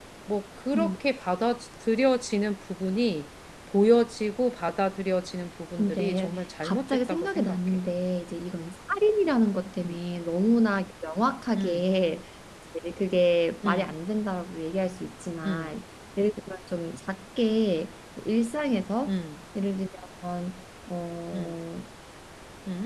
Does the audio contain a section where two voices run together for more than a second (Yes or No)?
Yes